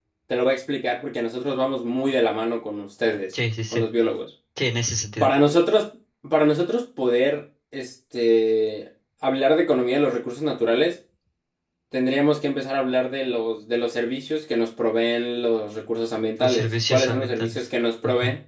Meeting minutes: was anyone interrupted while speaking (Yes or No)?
Yes